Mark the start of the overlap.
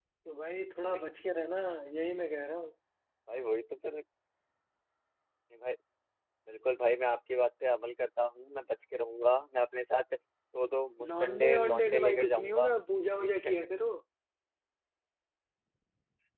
11.0 s

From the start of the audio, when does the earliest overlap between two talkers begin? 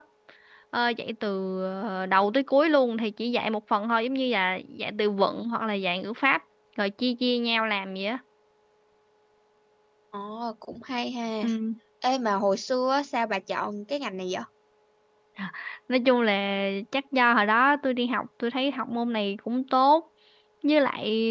none

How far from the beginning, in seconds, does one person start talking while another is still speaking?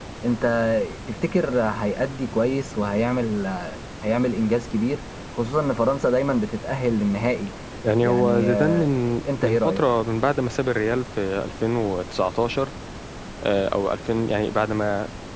8.0 s

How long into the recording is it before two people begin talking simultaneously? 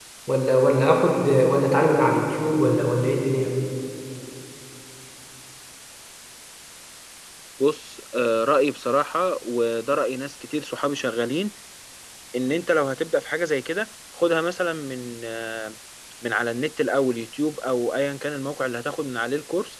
none

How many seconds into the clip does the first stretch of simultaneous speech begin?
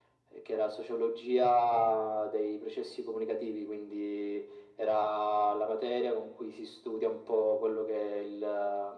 none

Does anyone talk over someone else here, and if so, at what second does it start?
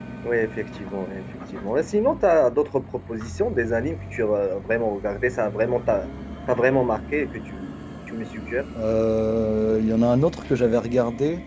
none

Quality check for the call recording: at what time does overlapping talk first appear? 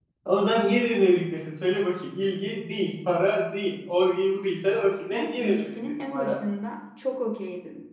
5.1 s

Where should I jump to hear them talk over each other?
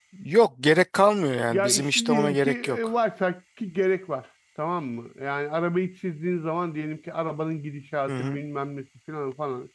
1.5 s

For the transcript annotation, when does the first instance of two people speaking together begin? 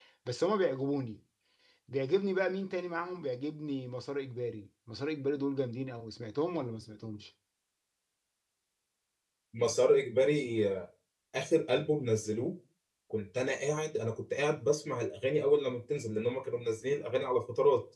none

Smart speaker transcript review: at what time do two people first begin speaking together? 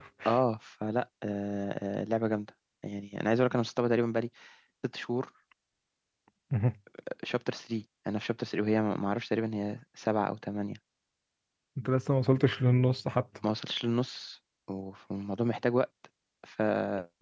none

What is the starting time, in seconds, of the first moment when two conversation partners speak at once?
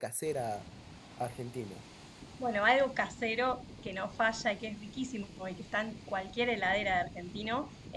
none

